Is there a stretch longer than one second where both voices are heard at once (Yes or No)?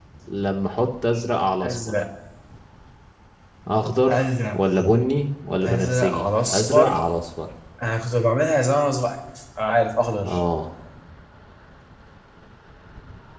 Yes